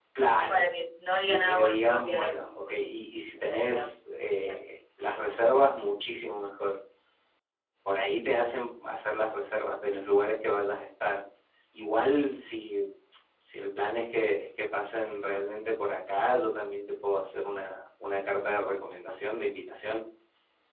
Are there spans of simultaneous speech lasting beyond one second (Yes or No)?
Yes